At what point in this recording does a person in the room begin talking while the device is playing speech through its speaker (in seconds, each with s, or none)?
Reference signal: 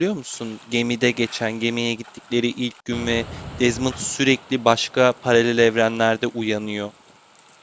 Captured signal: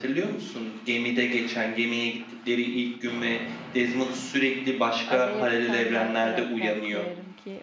5.1 s